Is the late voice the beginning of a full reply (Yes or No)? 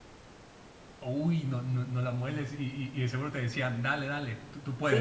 Yes